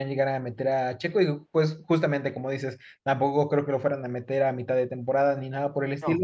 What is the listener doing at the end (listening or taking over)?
listening